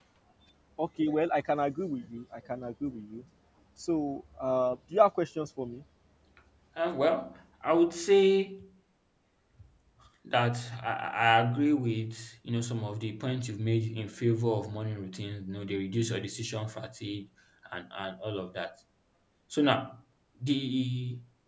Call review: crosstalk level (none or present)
none